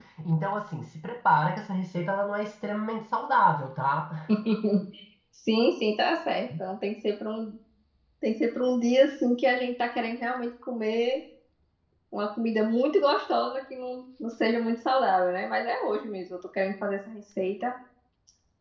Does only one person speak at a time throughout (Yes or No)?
Yes